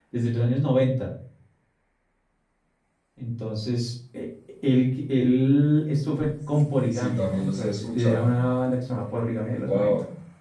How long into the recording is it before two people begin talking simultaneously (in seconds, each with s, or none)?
6.9 s